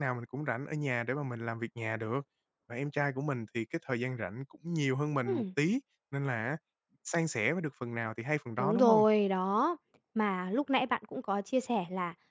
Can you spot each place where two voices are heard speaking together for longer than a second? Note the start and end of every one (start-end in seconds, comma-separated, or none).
none